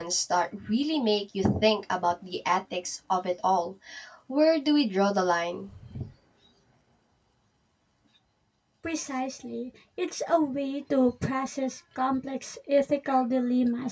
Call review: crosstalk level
none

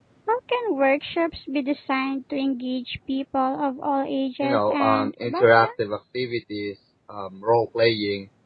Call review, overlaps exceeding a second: present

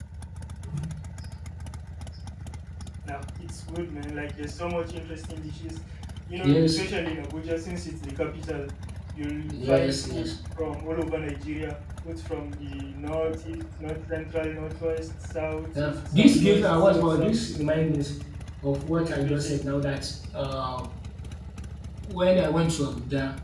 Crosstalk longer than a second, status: present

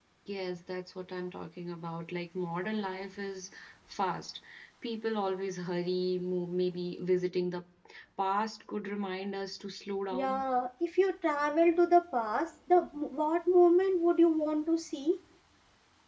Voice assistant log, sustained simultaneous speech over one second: none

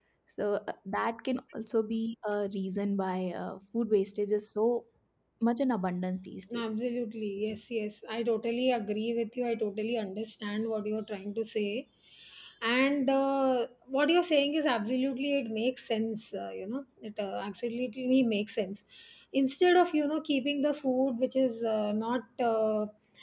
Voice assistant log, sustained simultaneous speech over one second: none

